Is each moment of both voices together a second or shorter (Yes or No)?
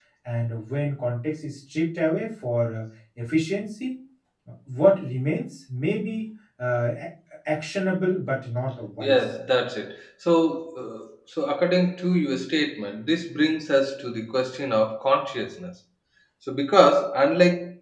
Yes